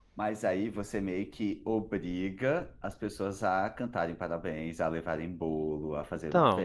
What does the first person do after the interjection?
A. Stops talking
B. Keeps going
A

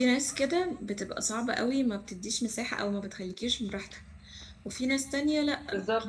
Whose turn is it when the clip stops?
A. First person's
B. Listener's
A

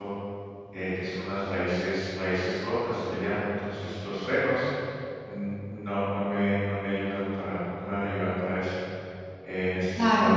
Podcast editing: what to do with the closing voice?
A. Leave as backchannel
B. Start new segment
A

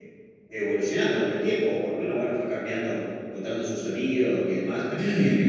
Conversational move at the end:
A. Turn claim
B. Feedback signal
B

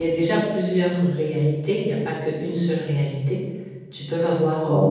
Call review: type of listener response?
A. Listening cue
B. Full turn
A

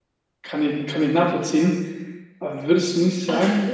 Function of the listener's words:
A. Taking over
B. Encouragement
B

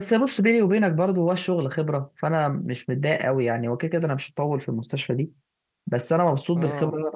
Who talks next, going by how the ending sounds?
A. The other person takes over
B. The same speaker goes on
B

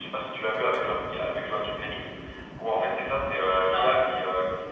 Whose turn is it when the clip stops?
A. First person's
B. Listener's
A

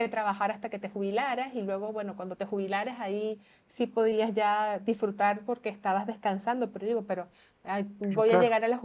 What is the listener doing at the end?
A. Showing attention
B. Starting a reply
A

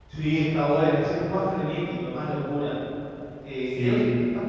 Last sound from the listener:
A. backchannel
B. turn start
A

